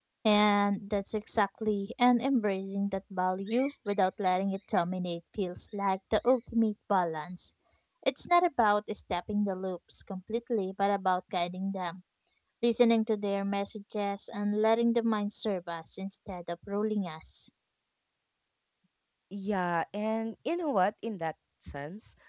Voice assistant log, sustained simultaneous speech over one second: none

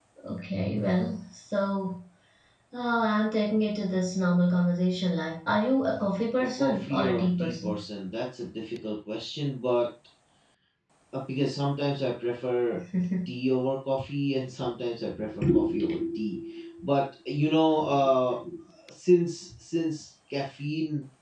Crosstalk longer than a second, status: present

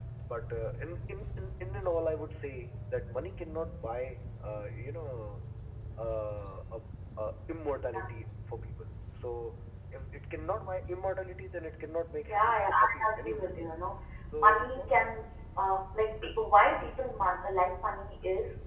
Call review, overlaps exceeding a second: present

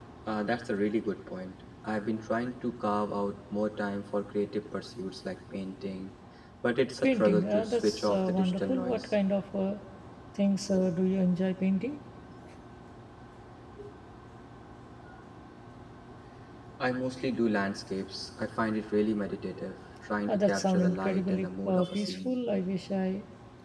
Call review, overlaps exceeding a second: present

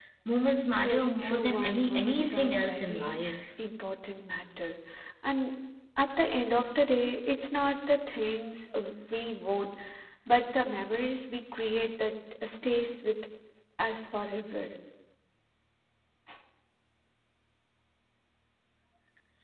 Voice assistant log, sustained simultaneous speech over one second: present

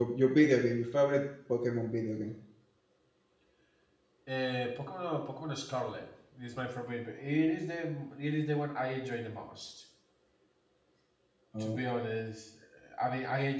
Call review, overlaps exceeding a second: none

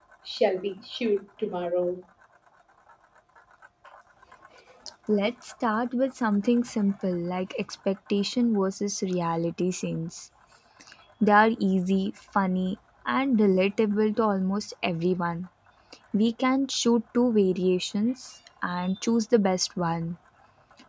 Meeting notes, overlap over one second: none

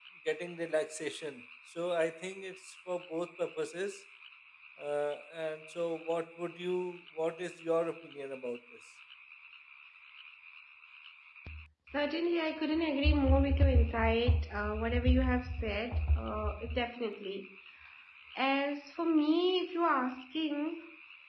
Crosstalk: none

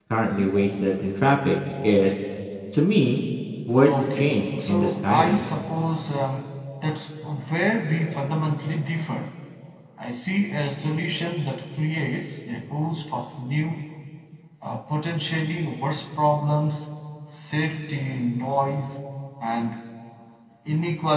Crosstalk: present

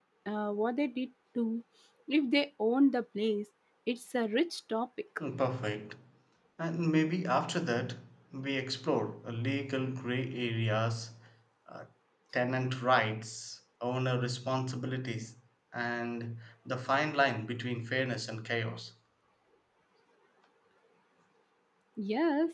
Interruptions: none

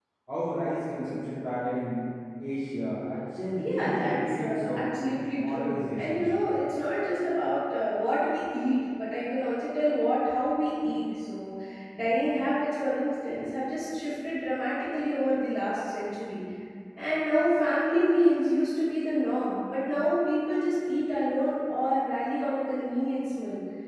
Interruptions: present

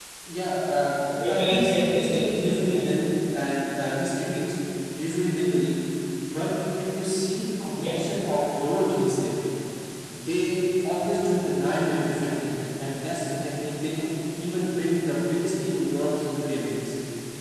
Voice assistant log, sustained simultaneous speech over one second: present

